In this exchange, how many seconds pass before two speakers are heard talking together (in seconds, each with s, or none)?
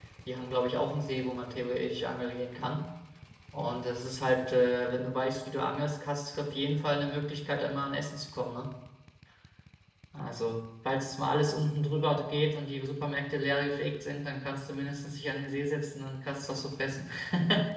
none